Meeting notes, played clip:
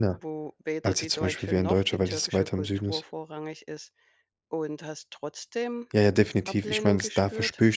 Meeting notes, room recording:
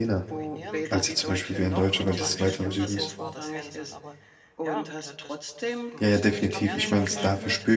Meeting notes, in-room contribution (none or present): present